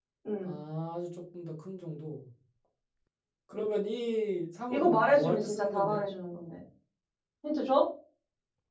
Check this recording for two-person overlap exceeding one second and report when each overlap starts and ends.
4.7-6.0

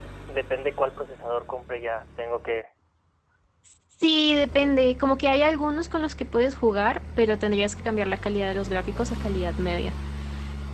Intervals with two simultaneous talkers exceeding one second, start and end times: none

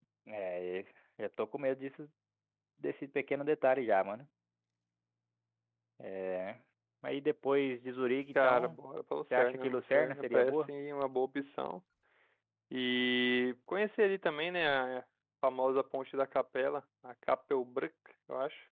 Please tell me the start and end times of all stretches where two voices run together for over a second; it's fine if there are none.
9.4-10.7

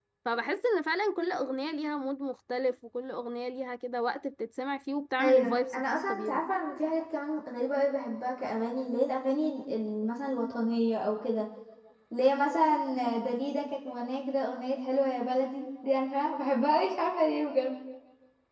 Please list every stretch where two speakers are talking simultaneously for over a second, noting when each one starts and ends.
5.2-6.4

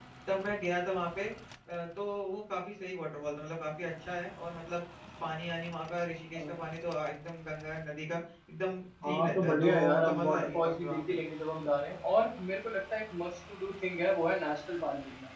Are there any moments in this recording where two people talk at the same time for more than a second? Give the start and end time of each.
9.0-11.1

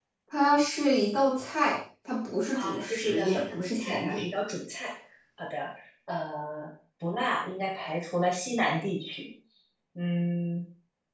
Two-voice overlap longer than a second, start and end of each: 2.5-4.2

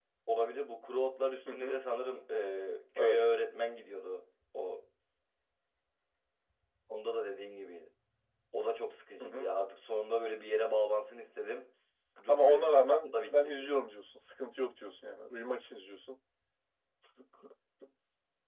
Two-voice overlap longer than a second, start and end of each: 12.3-13.7

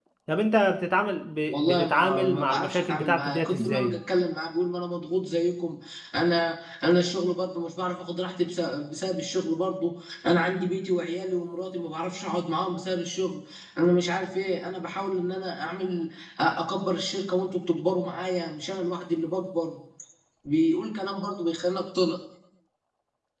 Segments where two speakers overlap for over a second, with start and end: 1.5-4.0

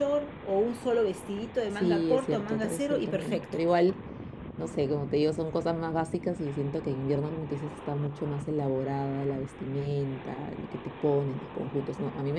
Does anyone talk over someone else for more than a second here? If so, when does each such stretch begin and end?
1.8-3.4

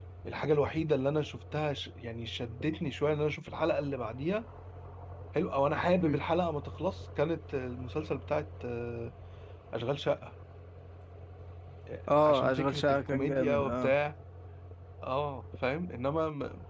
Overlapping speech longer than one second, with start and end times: 12.2-13.9

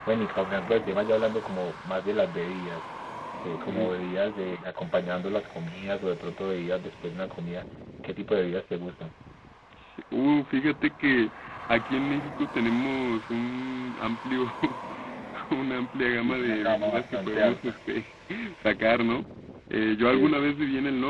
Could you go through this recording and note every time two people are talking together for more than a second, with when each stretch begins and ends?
16.2-17.8

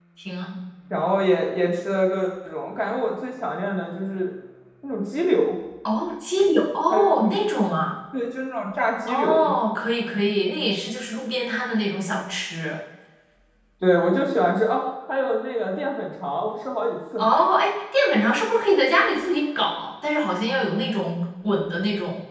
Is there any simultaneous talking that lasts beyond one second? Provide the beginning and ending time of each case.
none

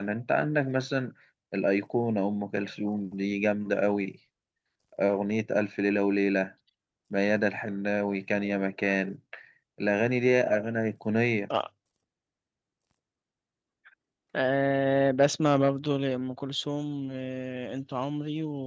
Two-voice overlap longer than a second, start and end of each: none

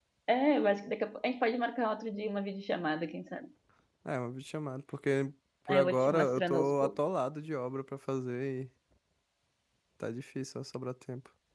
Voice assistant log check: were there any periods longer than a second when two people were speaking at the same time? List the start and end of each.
5.7-7.0

